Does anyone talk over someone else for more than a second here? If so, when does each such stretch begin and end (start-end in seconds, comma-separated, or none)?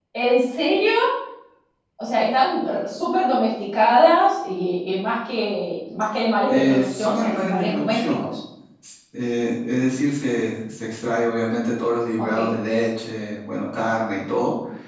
6.5-8.2